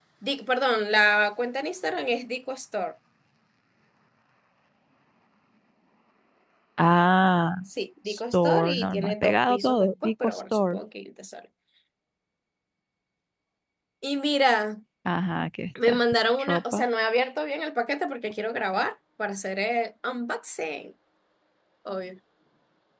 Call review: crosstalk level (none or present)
present